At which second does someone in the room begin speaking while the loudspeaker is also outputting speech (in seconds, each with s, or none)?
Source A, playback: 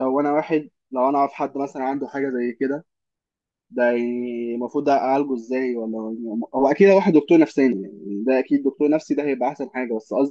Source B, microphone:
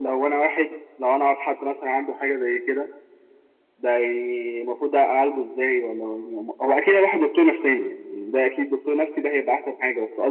none